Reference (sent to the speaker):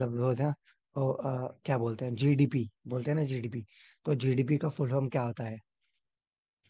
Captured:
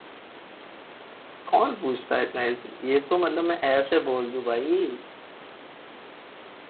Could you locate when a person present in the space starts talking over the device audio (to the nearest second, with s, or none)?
2 s